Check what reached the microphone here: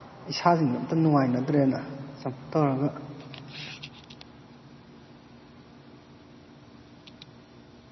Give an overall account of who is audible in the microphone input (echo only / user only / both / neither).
user only